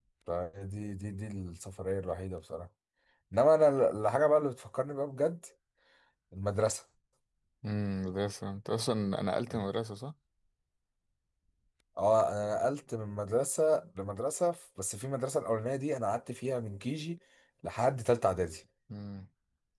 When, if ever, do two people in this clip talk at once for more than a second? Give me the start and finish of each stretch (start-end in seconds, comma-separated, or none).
none